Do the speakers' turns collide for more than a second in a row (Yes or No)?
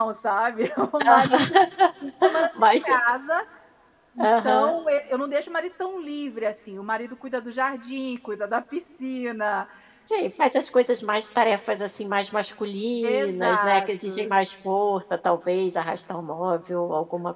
Yes